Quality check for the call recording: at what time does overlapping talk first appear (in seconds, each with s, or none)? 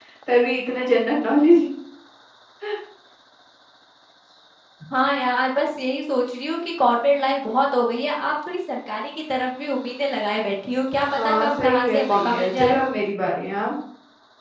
11.1 s